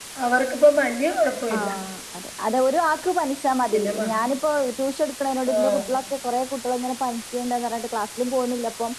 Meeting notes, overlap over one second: none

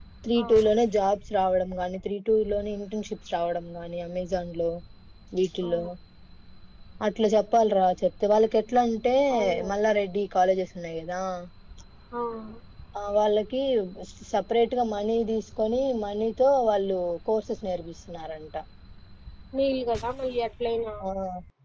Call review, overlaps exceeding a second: none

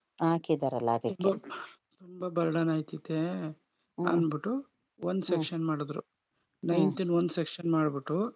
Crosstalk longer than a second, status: none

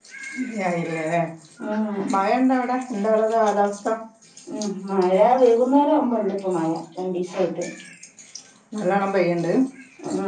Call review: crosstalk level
none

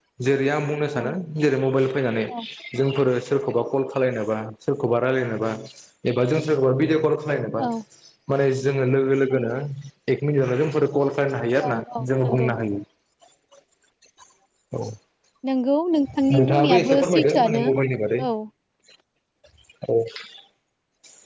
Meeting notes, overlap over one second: present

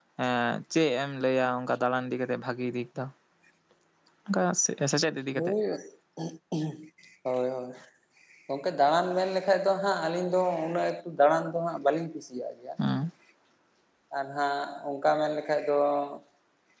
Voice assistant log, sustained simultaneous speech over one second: none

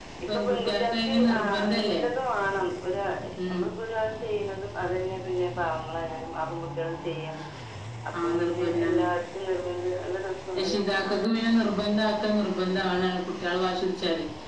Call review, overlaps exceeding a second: present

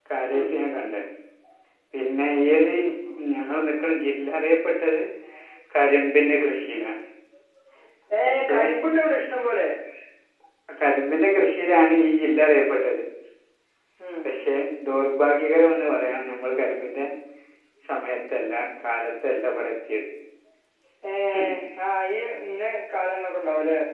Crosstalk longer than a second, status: none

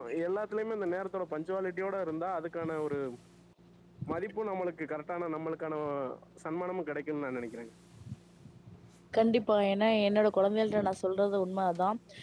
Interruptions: none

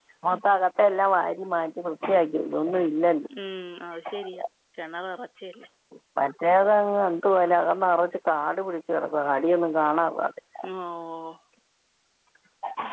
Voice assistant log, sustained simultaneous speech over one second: none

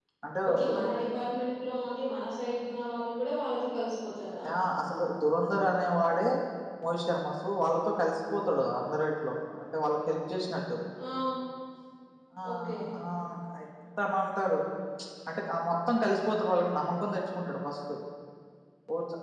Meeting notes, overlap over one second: none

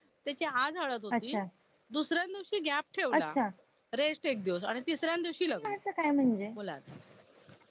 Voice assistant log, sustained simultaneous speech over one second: none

